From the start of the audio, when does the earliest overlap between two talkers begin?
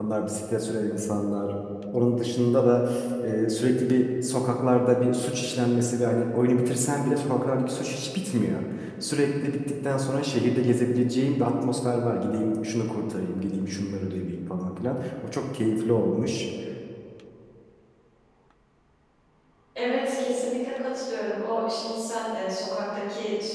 none

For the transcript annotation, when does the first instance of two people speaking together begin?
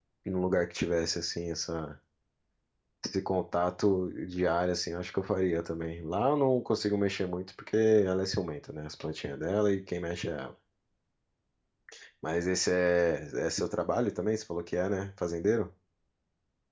none

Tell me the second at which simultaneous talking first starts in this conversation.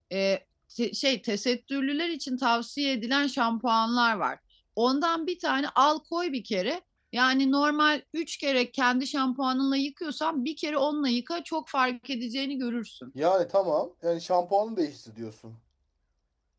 none

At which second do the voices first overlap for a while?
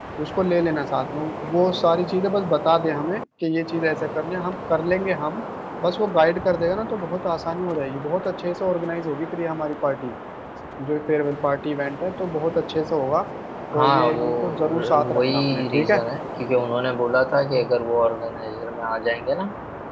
13.7 s

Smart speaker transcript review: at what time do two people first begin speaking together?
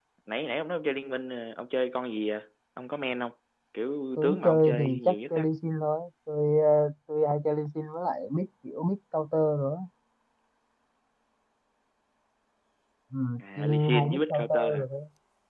4.2 s

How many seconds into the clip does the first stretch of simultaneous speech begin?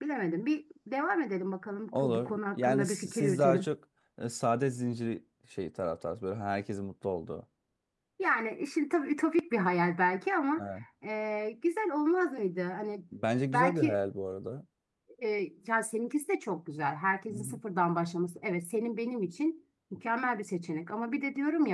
1.9 s

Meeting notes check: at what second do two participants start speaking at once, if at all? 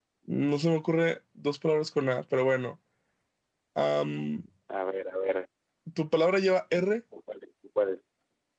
none

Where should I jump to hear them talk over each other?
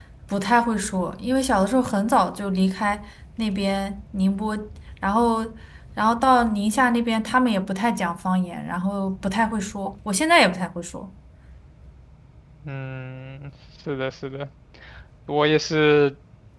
none

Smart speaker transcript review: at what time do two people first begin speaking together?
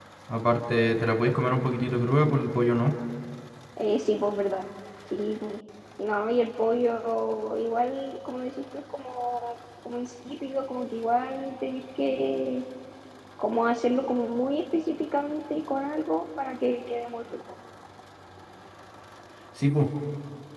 none

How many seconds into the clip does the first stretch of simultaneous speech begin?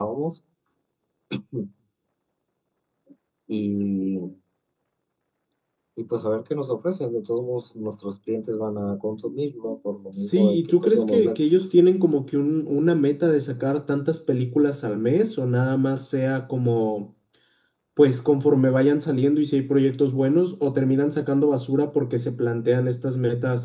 10.2 s

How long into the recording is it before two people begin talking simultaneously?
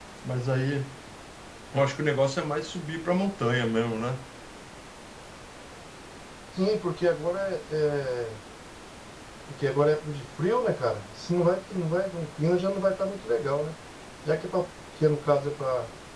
none

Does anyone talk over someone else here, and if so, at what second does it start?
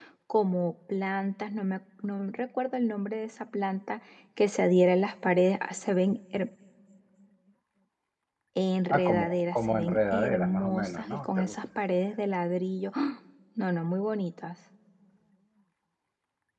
8.9 s

